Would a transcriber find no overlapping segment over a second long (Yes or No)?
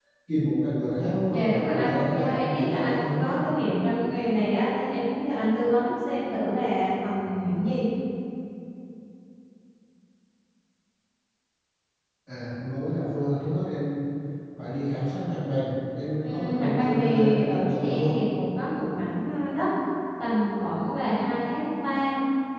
No